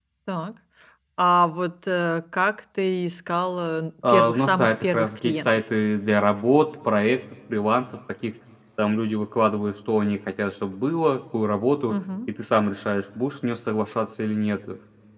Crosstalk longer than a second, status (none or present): present